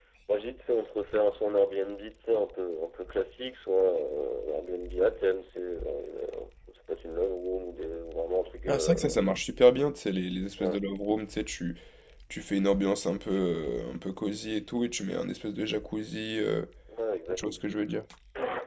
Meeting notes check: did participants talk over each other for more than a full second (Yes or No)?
No